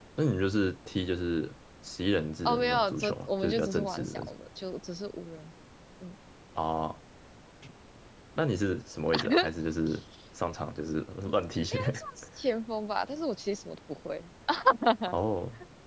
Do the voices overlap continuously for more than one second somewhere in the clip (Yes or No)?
Yes